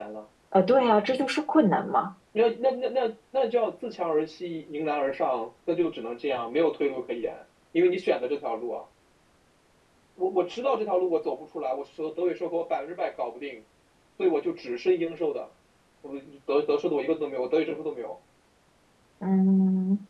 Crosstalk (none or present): none